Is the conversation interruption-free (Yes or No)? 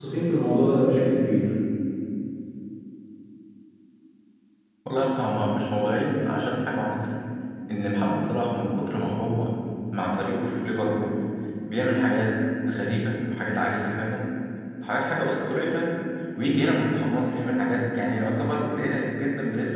Yes